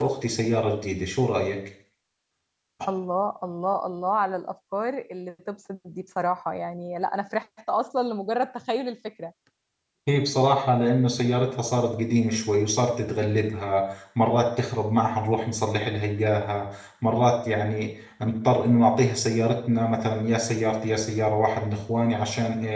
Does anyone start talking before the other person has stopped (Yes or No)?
No